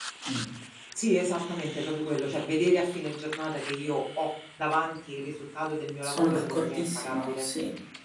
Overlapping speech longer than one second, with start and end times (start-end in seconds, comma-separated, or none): 6.0-7.5